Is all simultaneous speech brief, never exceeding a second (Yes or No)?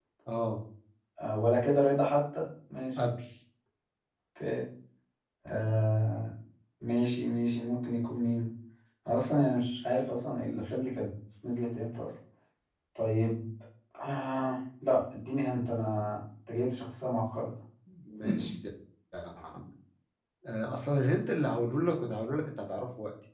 Yes